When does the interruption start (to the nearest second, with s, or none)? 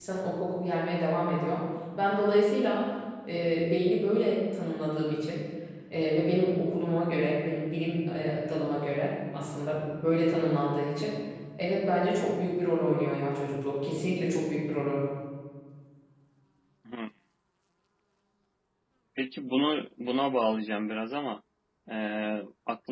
none